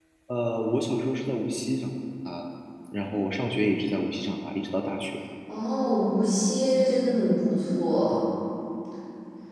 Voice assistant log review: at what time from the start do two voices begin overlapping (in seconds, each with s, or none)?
none